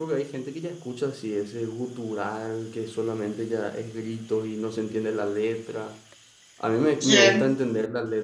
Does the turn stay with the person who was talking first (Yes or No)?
Yes